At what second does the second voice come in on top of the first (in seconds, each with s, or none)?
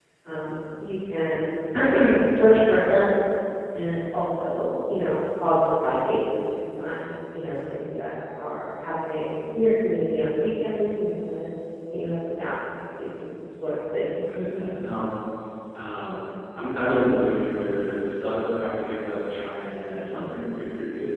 none